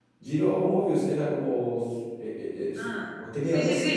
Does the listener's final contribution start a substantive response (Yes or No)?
Yes